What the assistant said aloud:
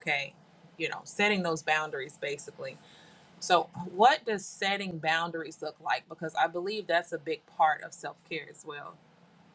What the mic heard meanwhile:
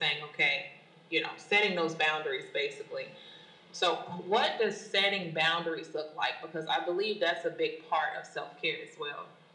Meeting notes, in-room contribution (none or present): none